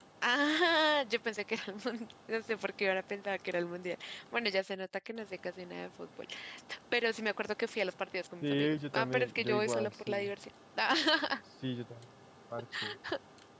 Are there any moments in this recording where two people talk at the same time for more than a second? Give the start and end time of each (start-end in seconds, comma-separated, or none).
8.4-10.3